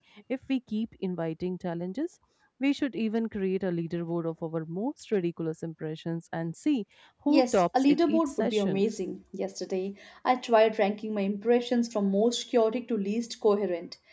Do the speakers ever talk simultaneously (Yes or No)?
Yes